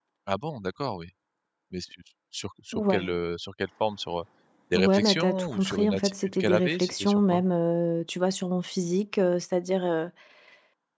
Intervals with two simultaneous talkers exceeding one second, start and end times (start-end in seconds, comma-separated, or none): 4.7-7.4